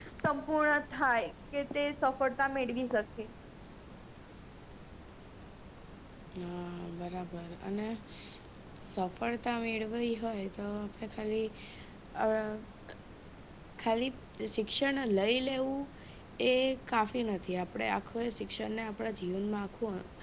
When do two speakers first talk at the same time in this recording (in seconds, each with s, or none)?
none